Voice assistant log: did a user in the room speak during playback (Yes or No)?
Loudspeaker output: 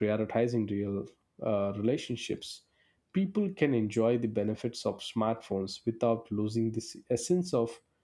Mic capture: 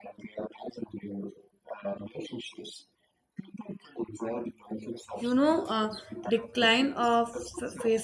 Yes